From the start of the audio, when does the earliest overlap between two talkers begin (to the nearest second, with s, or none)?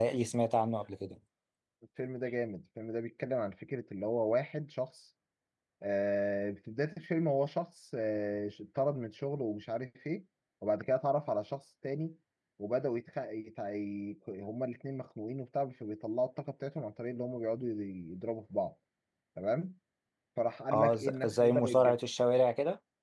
21 s